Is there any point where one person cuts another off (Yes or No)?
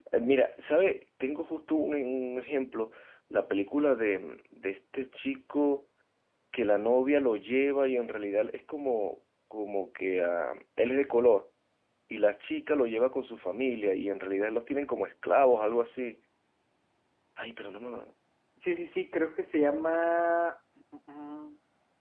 No